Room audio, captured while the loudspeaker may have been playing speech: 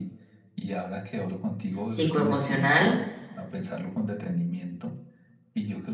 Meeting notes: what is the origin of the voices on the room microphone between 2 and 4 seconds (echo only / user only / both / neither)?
both